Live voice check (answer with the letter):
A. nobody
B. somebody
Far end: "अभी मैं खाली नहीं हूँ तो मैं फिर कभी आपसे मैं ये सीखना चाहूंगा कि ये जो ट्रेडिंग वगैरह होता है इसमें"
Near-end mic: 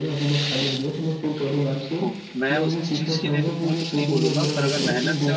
B